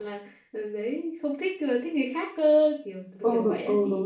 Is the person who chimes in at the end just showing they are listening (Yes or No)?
No